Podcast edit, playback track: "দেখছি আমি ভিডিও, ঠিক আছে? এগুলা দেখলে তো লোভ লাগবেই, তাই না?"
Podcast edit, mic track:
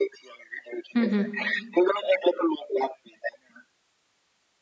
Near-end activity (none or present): present